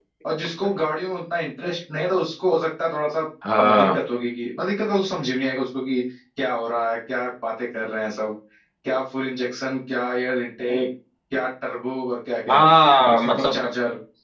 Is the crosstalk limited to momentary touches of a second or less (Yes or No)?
Yes